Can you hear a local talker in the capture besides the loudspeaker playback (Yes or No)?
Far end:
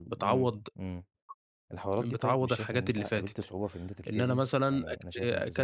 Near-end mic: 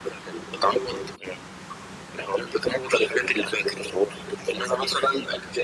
No